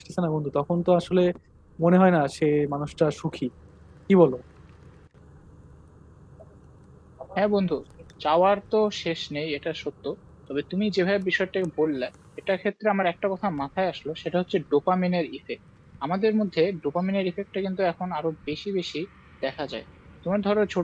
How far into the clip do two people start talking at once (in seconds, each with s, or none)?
none